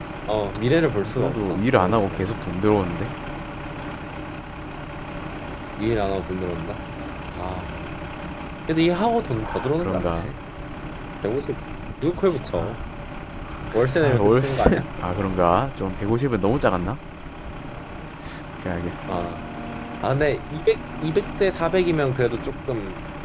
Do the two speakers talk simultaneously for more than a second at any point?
Yes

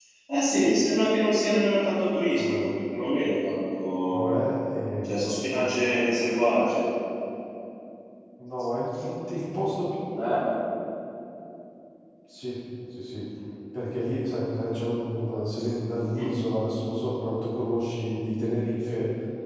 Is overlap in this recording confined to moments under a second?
Yes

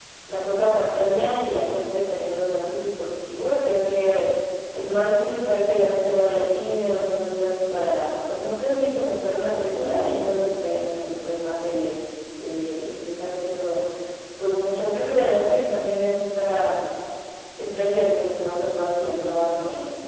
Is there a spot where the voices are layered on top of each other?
No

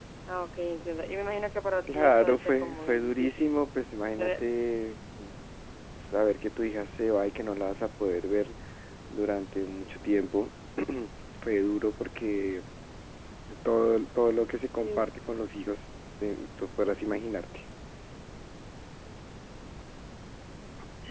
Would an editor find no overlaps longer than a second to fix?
No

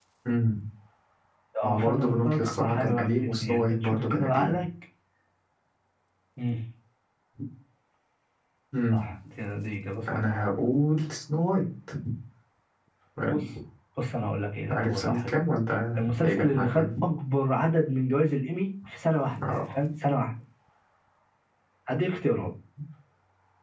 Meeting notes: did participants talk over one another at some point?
Yes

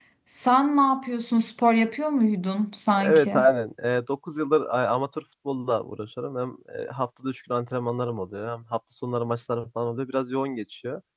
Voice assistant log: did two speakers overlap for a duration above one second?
No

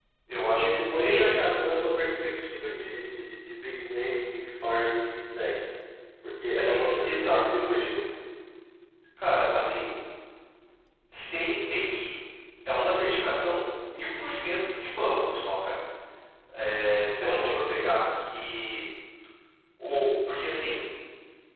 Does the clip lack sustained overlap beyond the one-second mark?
No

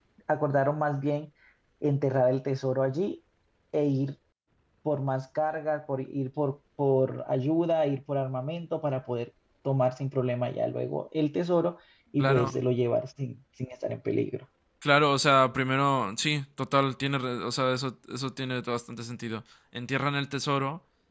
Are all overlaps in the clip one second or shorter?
Yes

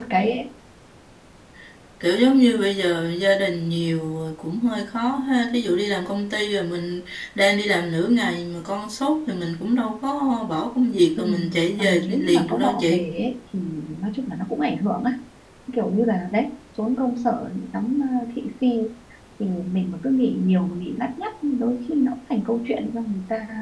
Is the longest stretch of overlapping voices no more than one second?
No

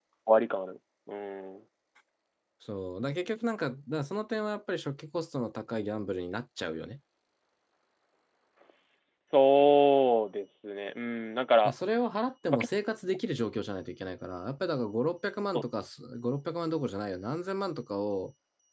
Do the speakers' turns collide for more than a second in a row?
No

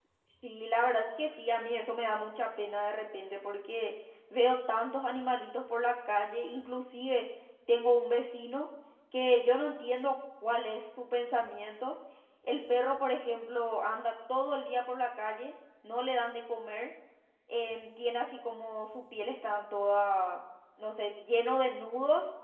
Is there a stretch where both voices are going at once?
No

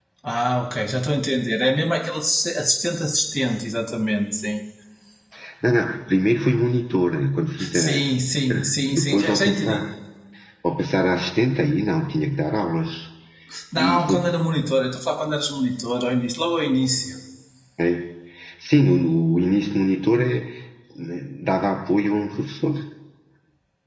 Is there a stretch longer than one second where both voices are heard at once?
Yes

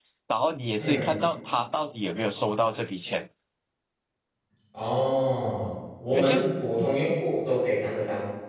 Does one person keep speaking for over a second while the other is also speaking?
No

